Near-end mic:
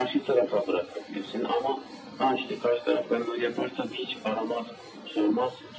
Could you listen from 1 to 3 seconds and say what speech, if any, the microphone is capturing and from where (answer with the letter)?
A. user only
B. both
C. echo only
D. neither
C